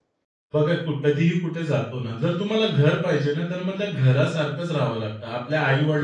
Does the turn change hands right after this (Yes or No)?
No